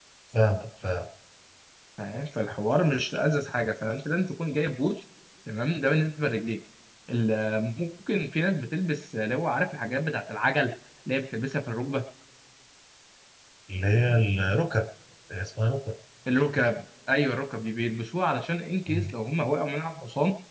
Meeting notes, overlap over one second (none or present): none